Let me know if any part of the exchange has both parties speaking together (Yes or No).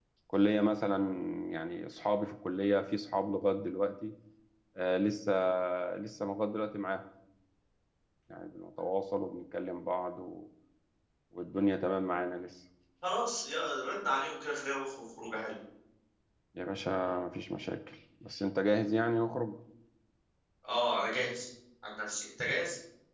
No